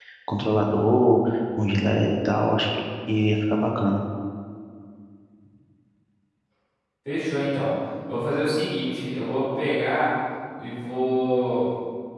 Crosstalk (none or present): none